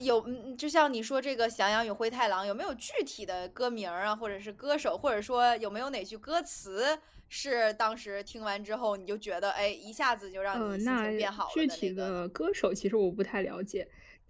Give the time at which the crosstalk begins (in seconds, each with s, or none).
10.5 s